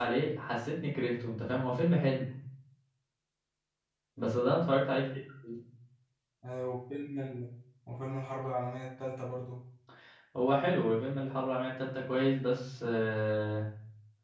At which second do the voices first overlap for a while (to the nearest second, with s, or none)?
none